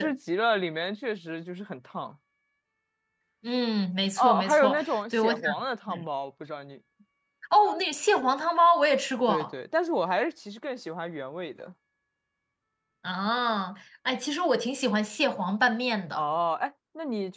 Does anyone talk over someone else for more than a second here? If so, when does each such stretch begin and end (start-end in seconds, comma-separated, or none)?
4.2-5.4